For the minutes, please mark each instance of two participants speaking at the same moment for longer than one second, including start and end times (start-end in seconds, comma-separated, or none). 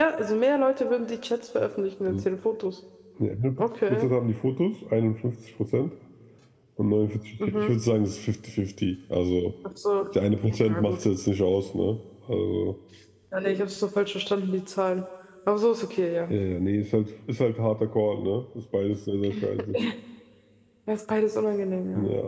none